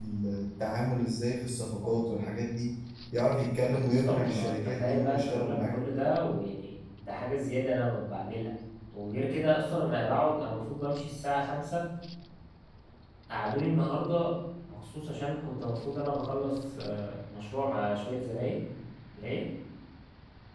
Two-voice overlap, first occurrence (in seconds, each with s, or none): 3.7 s